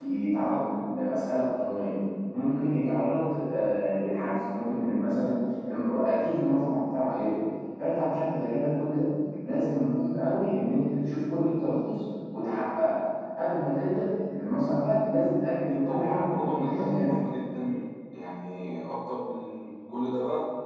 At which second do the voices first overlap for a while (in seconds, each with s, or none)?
15.7 s